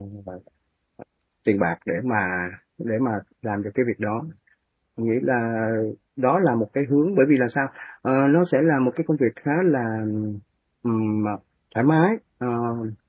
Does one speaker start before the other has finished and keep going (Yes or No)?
No